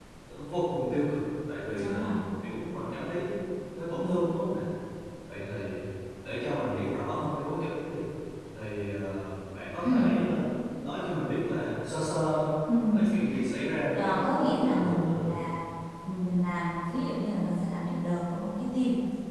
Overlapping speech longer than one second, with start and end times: 13.9-15.4

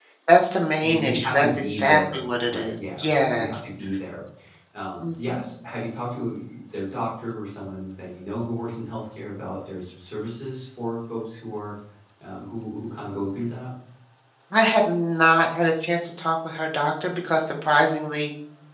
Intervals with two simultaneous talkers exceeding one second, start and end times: 0.8-3.6

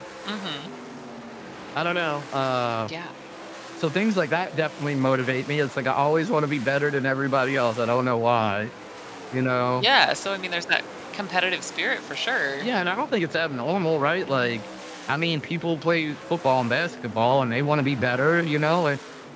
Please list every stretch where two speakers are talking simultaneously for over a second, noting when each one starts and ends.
none

